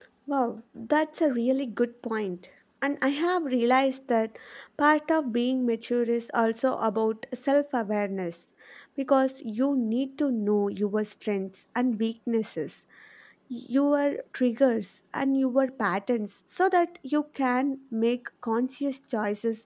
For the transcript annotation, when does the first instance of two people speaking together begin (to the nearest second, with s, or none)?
none